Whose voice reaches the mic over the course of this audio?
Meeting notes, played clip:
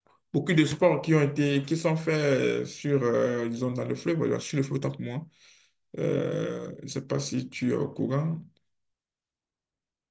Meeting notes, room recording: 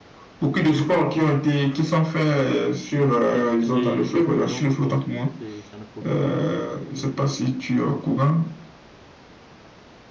both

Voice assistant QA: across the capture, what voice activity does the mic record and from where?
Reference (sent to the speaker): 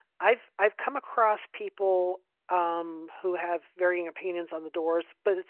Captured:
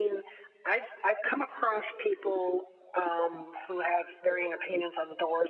echo only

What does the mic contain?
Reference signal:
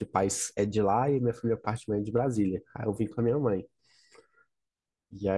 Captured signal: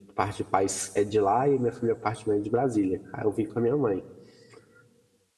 echo only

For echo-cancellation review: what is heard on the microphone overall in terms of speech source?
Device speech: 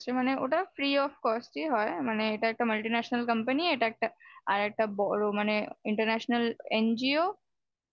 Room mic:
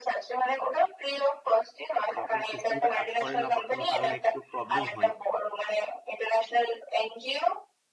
both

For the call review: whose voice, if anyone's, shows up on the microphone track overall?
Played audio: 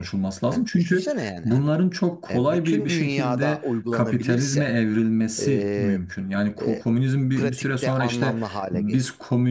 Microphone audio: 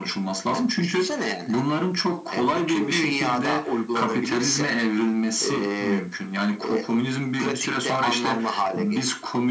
echo only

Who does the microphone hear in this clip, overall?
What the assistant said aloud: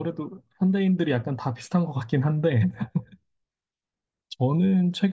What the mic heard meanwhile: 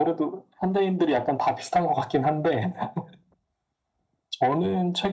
echo only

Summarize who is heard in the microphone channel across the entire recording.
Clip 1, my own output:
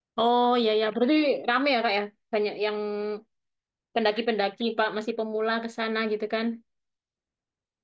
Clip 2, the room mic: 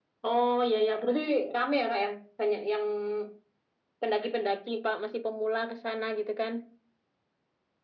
echo only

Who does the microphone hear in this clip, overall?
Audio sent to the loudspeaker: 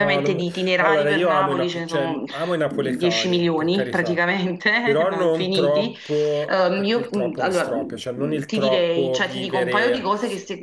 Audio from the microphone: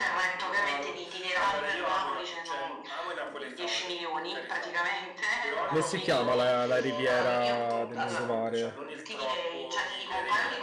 both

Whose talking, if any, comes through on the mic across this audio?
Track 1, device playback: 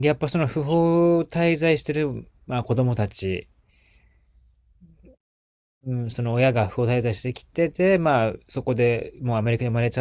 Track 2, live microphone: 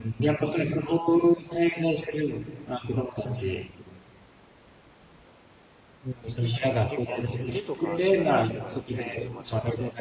both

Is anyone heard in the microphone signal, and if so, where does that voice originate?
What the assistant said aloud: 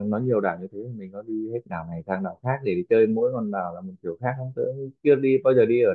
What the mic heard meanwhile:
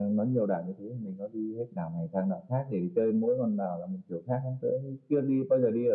echo only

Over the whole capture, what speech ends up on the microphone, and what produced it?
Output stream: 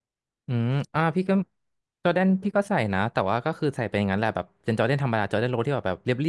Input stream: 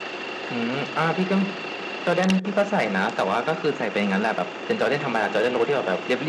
echo only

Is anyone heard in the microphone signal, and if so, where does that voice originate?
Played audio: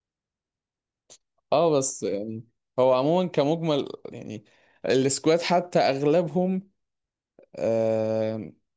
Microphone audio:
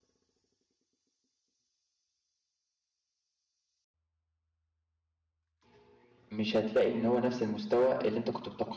user only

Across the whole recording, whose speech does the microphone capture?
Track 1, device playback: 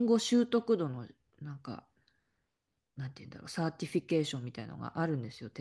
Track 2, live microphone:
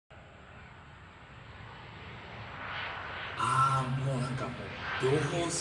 user only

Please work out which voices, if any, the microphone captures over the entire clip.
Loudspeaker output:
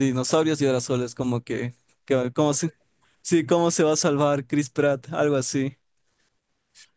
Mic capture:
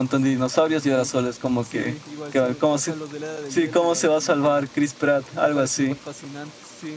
both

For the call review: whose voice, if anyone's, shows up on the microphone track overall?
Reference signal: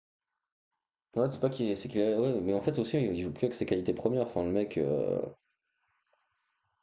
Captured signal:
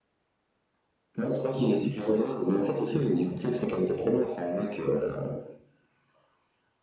echo only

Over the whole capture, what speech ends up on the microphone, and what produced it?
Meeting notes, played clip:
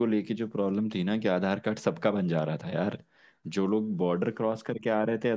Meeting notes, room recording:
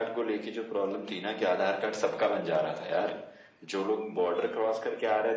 echo only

